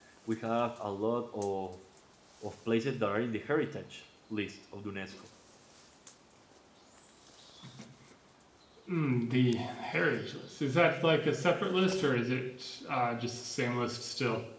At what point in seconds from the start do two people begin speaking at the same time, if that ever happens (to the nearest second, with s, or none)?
none